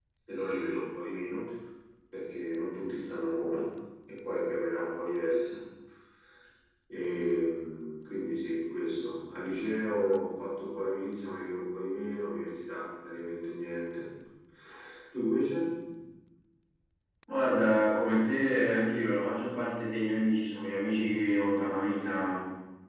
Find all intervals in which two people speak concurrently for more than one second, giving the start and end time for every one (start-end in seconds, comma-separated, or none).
none